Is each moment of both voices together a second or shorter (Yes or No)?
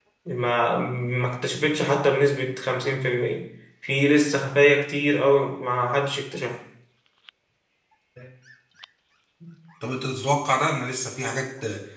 Yes